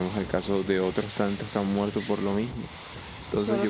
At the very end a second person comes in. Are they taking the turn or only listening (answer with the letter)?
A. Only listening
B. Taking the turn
B